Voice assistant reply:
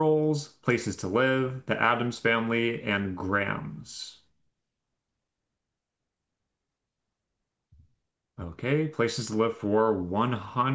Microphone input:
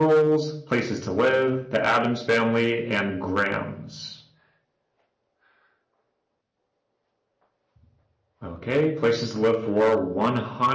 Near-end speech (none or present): none